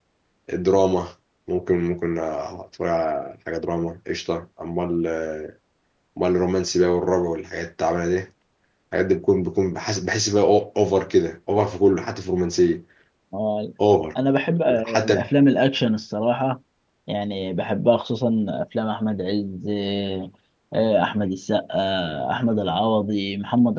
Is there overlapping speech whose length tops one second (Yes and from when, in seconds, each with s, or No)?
No